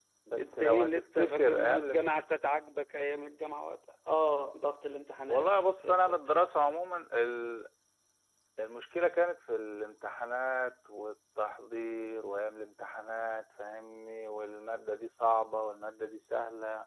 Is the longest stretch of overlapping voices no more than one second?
No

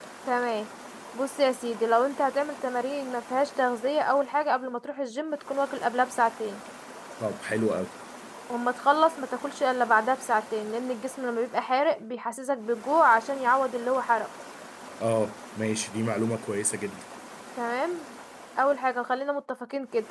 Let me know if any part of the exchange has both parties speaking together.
No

